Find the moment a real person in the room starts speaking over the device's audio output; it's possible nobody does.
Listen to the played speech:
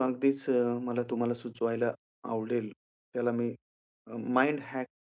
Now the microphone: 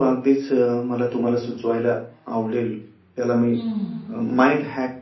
3.5 s

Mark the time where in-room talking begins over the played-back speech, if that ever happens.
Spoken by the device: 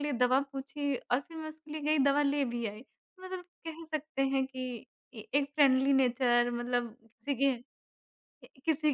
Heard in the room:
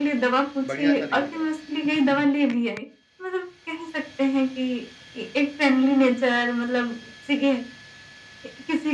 0.7 s

